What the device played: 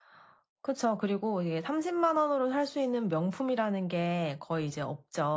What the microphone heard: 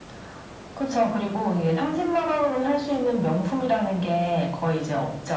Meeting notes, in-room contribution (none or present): none